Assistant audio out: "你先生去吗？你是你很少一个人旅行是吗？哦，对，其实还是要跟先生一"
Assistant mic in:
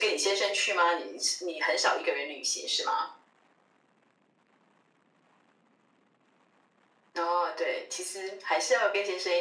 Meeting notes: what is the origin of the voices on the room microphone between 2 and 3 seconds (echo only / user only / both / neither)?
echo only